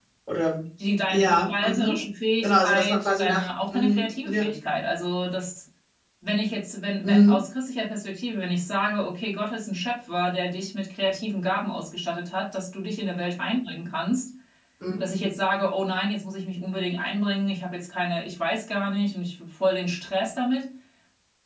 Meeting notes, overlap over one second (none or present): present